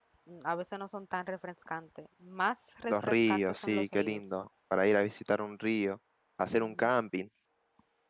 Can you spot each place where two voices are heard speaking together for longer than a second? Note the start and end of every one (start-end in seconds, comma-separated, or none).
2.9-4.2